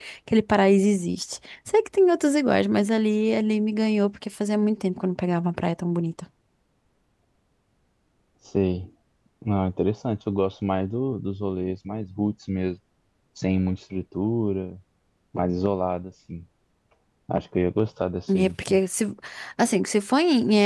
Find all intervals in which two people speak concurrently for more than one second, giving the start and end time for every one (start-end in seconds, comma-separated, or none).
none